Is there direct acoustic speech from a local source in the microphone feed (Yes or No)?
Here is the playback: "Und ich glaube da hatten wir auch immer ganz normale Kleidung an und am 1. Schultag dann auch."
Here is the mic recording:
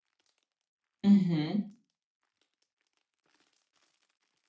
Yes